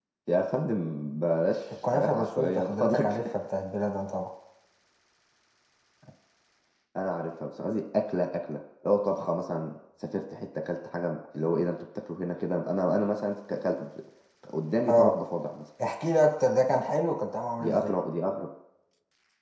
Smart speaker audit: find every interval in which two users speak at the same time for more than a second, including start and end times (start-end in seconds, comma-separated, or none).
1.7-3.3